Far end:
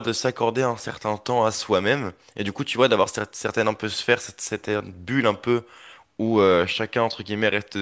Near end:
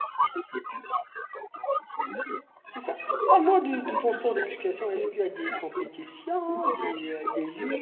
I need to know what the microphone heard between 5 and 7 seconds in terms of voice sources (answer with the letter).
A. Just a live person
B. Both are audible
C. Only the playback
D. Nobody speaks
B